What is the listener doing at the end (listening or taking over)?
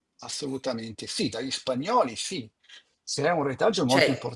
listening